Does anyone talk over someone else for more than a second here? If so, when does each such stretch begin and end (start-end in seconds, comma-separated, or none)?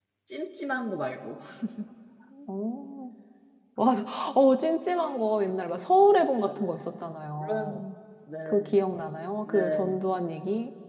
none